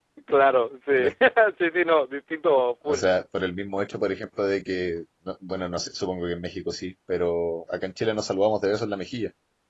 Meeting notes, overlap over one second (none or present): none